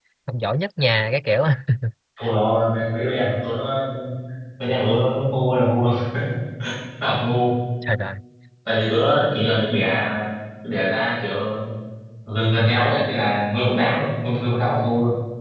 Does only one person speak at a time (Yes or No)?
Yes